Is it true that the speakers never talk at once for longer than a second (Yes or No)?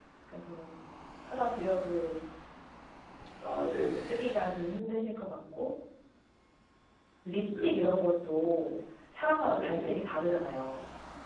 Yes